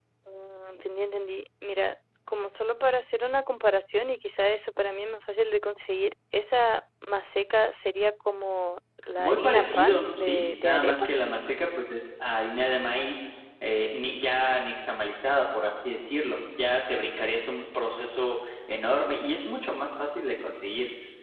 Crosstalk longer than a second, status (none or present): present